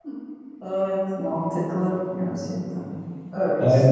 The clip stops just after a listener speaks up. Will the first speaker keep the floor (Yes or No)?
No